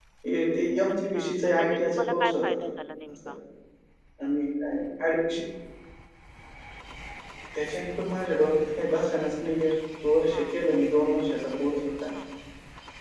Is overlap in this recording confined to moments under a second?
No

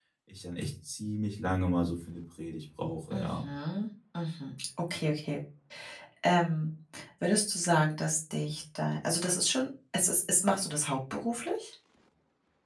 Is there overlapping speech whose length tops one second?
No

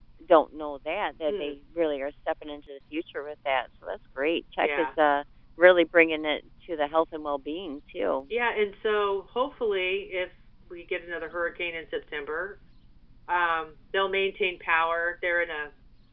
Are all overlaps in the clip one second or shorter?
Yes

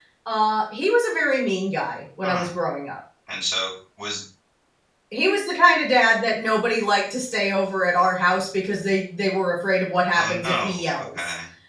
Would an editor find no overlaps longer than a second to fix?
No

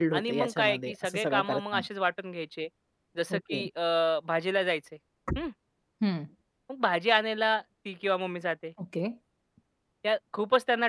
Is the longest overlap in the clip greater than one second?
Yes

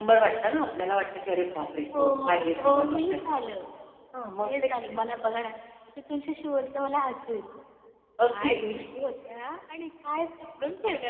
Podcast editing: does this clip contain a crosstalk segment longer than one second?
Yes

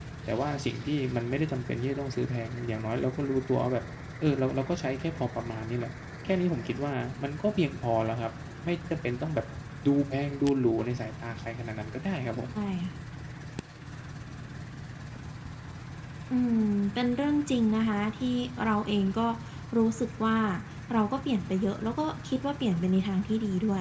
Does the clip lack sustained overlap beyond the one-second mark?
Yes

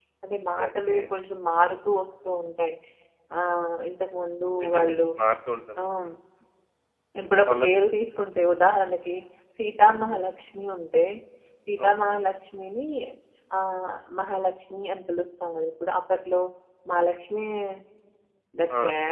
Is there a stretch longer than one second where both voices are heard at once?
No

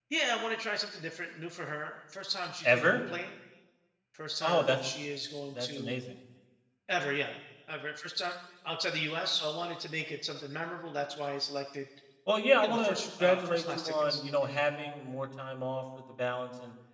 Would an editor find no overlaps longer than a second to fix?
No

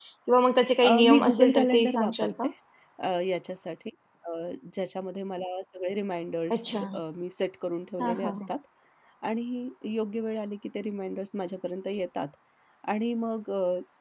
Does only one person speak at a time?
No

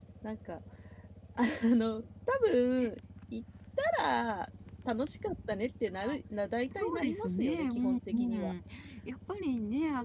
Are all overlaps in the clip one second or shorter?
No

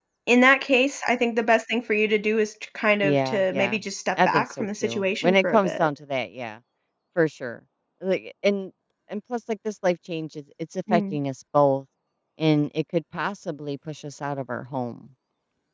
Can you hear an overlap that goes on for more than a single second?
Yes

